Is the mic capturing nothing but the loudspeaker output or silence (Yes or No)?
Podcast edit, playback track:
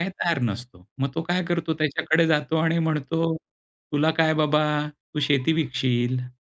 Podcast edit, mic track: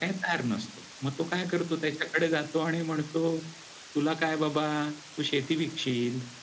Yes